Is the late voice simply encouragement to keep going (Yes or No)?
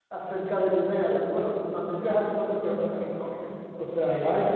Yes